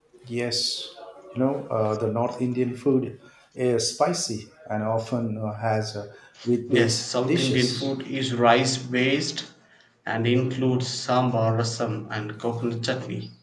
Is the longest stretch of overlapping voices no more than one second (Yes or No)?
No